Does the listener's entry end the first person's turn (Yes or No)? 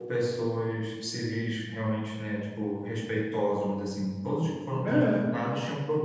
No